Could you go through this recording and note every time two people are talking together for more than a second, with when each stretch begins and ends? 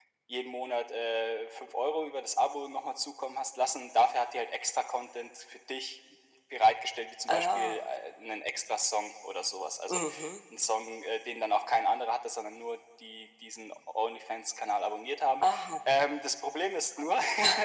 none

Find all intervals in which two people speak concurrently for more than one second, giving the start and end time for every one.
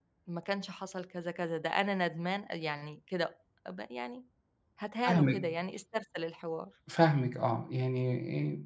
none

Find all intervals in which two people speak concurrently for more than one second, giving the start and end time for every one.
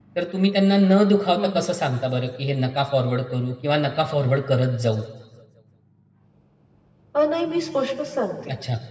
none

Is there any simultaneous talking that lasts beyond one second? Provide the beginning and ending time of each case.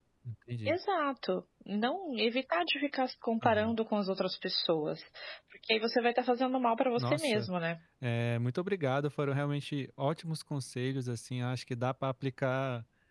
none

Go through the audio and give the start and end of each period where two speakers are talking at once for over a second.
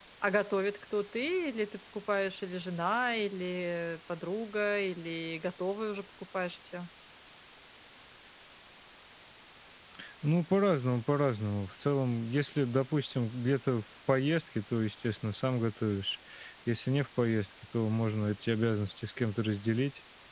none

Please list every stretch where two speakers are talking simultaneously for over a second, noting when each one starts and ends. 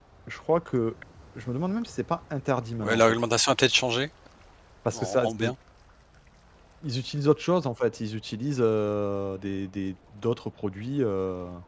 none

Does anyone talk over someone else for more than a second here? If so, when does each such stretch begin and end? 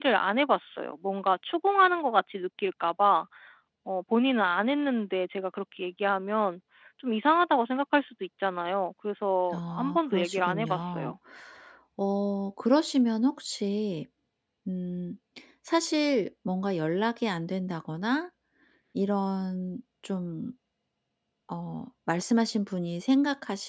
9.5-11.1

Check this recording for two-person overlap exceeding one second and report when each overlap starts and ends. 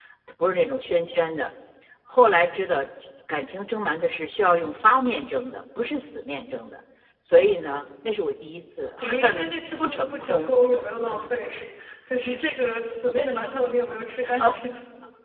9.0-10.5

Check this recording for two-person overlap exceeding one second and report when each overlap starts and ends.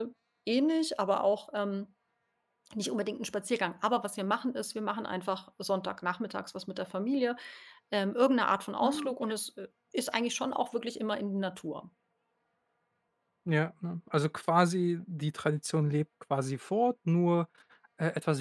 none

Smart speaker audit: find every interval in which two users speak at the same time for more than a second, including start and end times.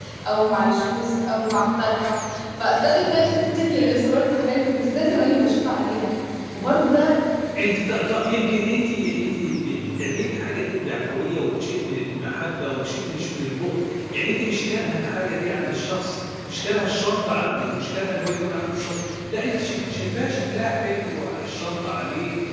none

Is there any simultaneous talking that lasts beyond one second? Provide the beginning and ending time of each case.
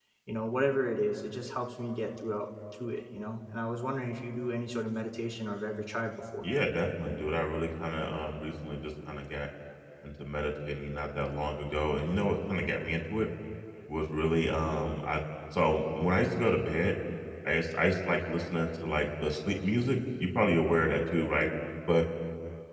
none

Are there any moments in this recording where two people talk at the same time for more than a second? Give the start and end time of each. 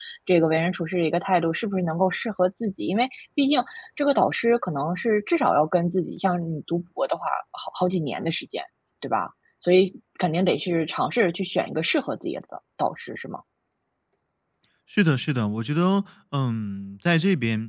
none

